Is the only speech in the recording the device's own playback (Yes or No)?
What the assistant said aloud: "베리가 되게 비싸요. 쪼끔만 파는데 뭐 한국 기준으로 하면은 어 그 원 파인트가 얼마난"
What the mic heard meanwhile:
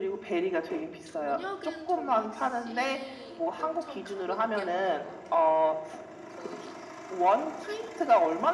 No